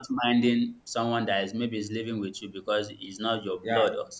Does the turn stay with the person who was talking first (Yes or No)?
Yes